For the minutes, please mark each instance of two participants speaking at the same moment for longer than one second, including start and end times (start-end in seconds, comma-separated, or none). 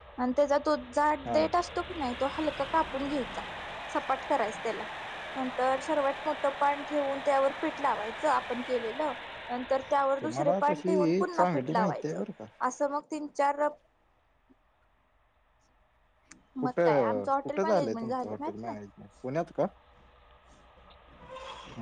10.2-12.2, 16.6-18.8